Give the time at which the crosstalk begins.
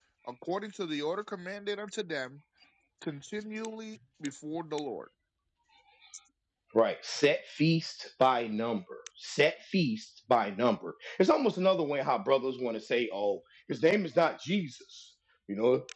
none

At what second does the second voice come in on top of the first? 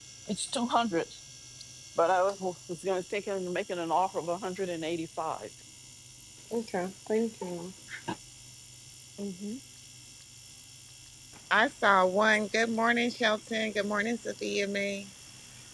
none

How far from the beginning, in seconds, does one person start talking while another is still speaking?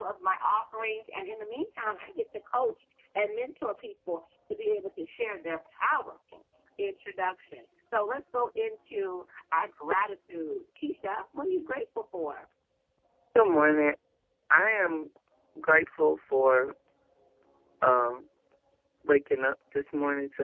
none

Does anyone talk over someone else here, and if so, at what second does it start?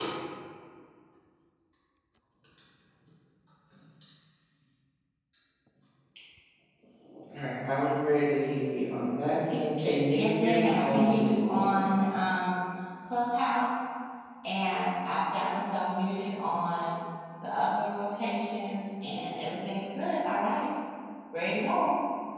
10.1 s

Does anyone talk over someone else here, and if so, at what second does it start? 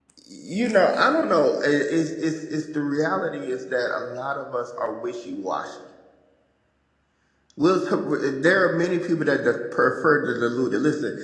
none

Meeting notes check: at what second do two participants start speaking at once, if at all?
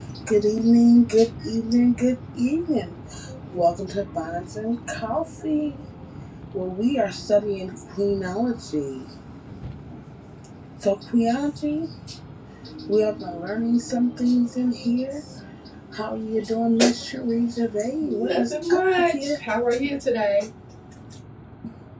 18.0 s

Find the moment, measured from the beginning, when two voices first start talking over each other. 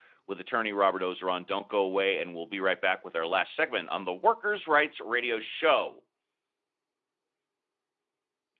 none

